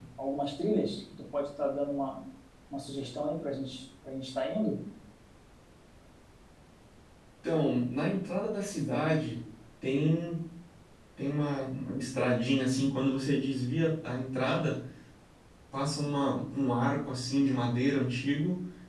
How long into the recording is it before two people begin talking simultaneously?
none

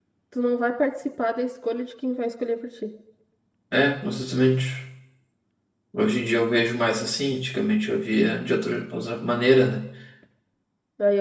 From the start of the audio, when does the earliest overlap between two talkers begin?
none

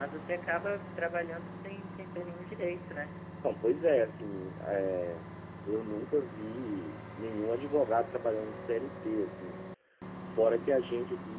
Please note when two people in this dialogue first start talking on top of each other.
none

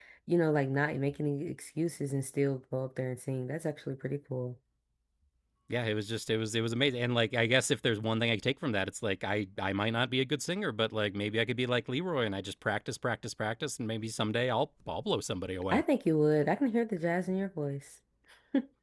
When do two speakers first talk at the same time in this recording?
none

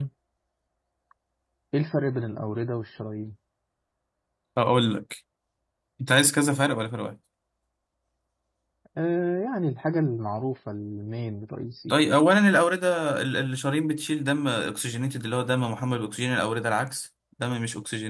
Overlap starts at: none

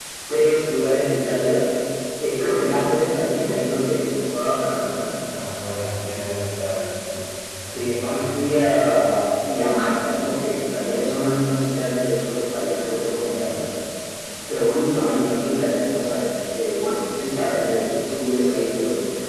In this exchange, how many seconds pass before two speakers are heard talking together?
7.7 s

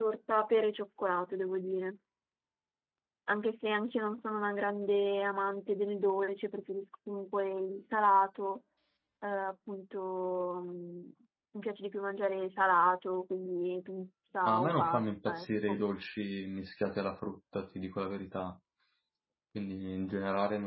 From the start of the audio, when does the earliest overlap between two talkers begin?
14.4 s

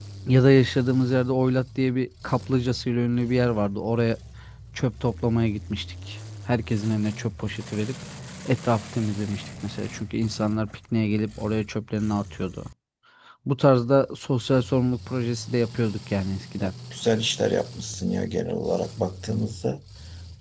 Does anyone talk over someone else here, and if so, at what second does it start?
none

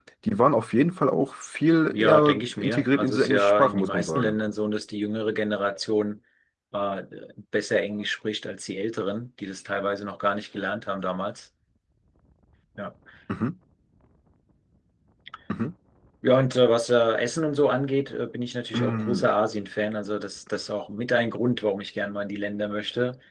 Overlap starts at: 1.9 s

